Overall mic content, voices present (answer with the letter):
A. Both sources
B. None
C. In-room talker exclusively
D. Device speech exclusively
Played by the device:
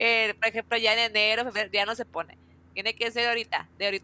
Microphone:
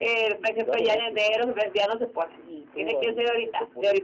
A